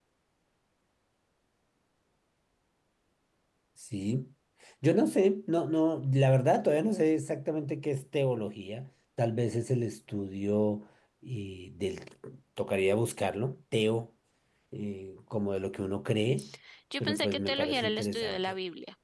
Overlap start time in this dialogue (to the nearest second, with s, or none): 17 s